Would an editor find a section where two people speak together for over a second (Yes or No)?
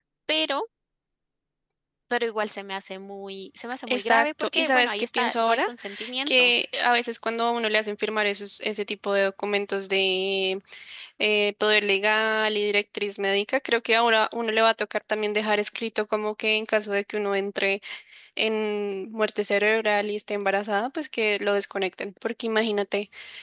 Yes